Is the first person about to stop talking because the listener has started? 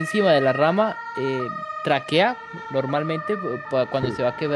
No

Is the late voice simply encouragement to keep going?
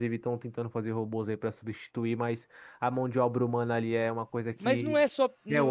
No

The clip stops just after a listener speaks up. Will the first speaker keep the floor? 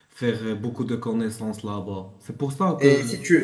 No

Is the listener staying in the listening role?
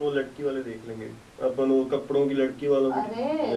No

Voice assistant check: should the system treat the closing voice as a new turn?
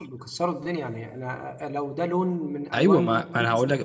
Yes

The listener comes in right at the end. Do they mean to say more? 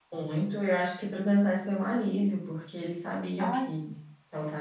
No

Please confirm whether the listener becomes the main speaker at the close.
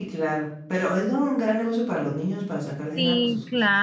Yes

